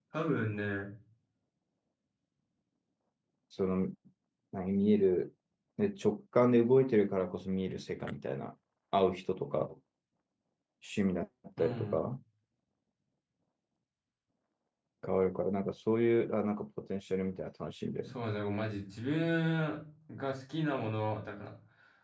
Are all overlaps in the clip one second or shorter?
Yes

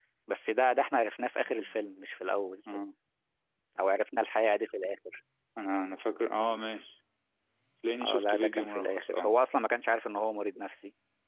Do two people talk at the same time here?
Yes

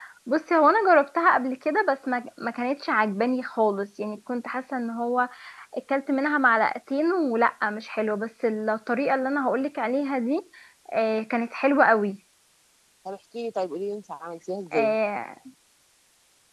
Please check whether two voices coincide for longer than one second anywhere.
No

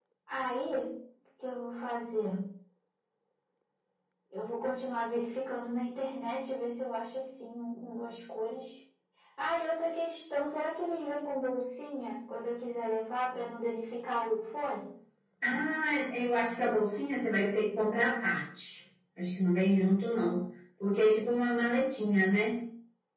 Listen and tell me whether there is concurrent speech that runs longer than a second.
No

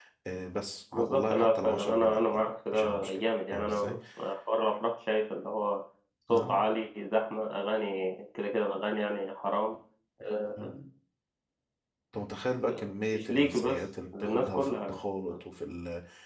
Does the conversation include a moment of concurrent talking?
Yes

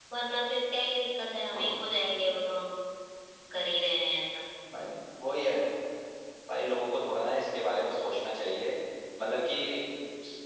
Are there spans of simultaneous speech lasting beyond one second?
No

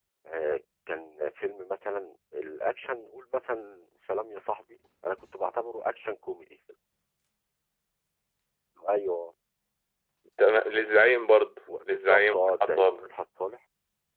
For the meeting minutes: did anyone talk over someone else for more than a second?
Yes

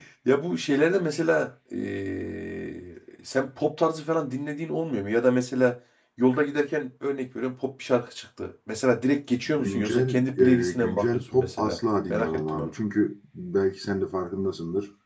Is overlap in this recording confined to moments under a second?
No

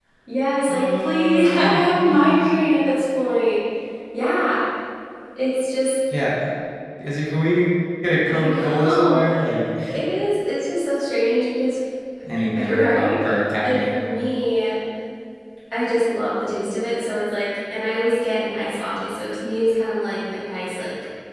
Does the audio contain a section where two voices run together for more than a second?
Yes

